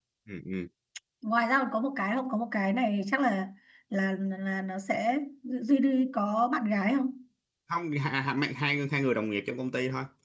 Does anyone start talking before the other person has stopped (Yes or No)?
No